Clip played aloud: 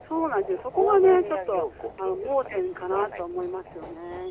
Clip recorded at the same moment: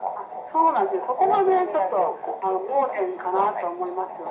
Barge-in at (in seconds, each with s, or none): none